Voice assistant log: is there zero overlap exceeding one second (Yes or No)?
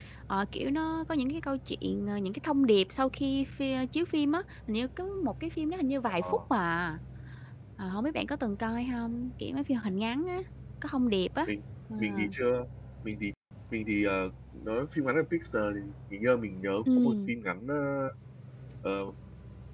Yes